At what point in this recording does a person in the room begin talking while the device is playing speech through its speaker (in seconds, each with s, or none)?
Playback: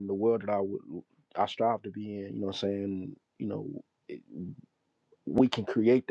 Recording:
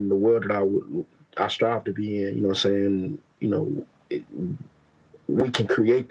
none